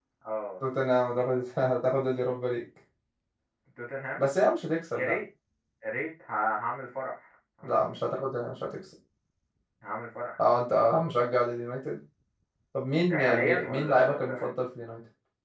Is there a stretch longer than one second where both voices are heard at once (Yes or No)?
Yes